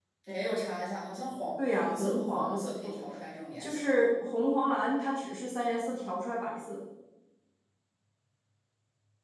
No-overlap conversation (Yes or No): No